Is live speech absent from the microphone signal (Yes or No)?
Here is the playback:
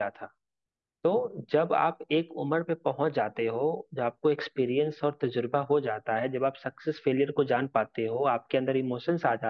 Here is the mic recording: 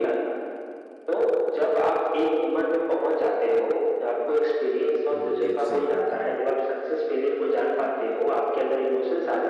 No